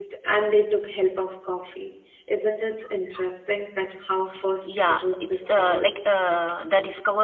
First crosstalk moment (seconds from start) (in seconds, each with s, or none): 4.6 s